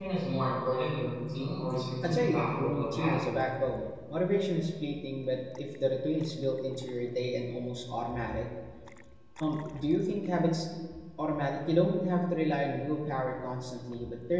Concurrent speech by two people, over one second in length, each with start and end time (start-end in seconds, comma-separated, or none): 2.0-3.3